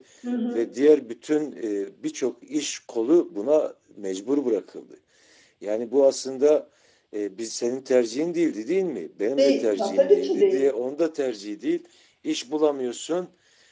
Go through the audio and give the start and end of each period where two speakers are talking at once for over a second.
9.4-10.7

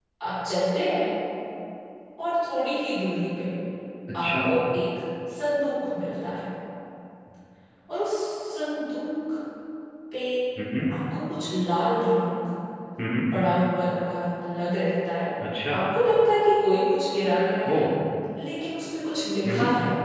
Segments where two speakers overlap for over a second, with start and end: none

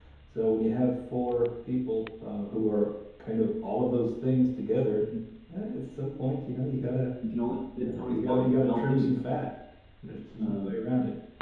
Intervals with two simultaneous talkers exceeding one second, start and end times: 7.8-9.1

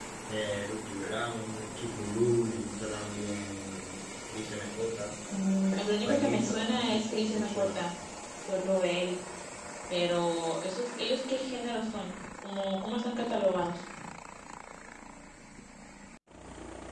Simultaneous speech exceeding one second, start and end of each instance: 6.0-7.8

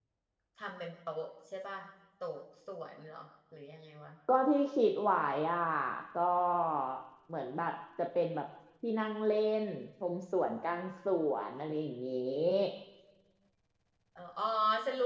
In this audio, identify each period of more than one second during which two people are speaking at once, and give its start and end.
none

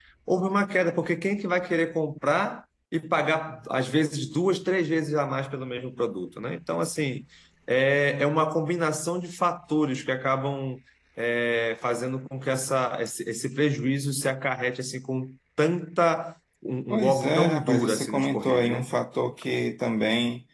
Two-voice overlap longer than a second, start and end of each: 16.9-18.8

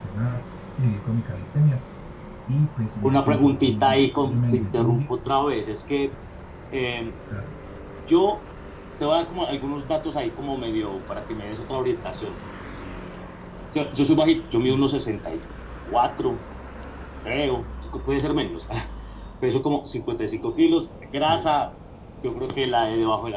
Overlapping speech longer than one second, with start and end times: 3.0-5.0

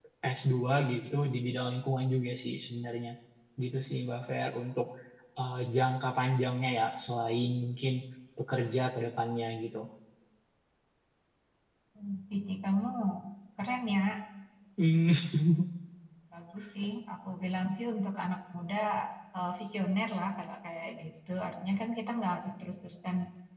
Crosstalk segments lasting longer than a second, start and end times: none

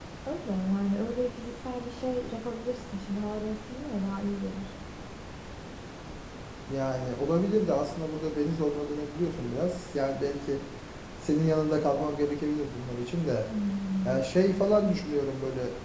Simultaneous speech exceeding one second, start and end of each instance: none

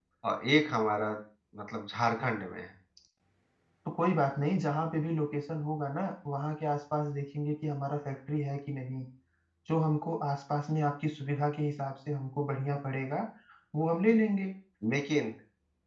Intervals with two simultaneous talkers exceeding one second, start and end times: none

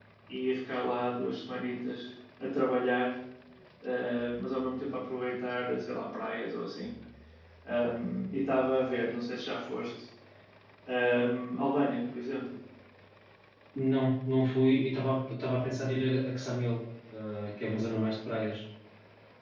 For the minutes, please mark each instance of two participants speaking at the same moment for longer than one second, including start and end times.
none

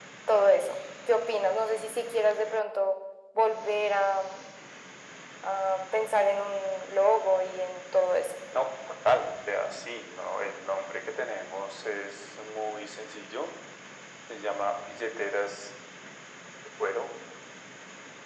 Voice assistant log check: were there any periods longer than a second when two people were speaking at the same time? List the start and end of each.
none

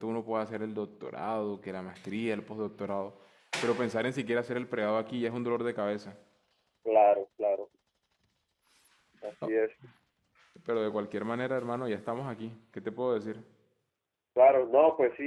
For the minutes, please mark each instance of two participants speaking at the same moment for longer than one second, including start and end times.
none

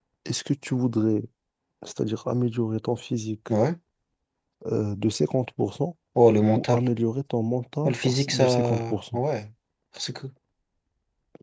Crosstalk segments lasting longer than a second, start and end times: 7.8-9.2

